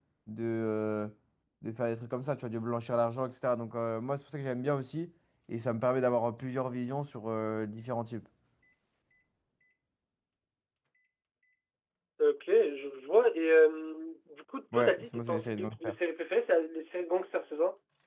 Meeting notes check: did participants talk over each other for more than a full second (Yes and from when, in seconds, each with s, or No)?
Yes, from 14.7 s